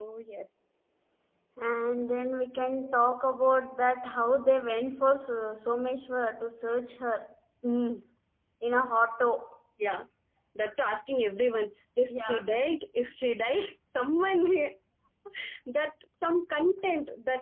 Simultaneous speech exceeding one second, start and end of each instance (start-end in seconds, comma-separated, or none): none